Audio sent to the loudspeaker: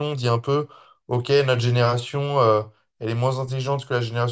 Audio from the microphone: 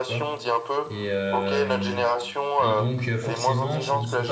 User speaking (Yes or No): Yes